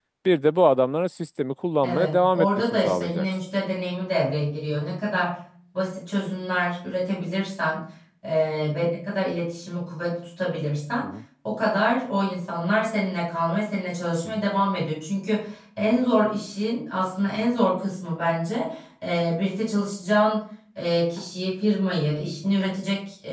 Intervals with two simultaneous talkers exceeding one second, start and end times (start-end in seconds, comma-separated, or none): 1.8-3.4